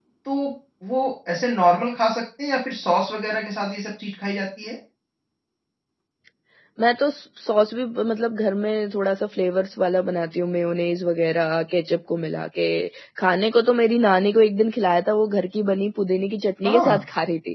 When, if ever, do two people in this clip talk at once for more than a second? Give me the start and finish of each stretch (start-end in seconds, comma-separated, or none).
none